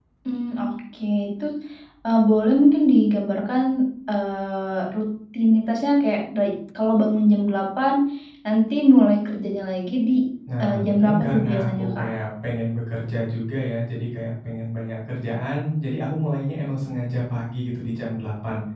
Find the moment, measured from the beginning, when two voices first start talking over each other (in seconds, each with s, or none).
10.6 s